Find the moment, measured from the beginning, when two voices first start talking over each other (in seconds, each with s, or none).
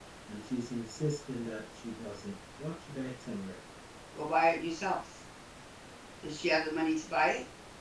none